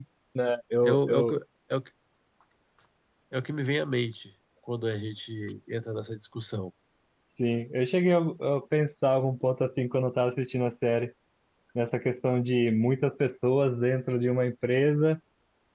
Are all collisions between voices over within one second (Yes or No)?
Yes